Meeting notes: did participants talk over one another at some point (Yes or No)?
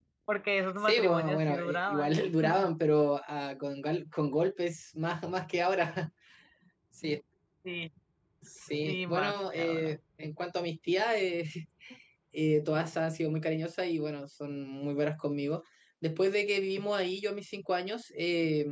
Yes